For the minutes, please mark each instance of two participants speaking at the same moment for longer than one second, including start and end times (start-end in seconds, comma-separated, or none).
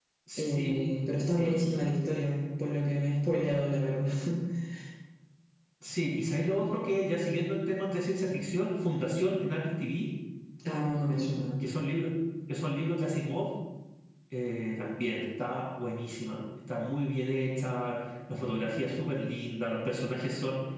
none